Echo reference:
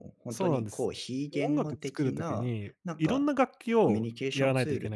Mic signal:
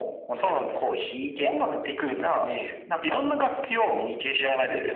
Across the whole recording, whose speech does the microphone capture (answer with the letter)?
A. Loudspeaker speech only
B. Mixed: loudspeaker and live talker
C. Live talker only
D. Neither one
A